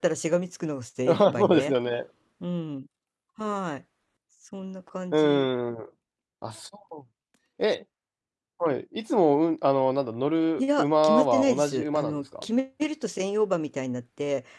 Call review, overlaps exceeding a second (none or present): present